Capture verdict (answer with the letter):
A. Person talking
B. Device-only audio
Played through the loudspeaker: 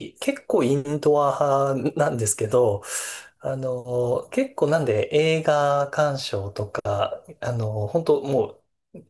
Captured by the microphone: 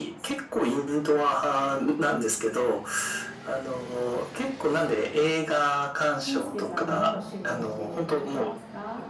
A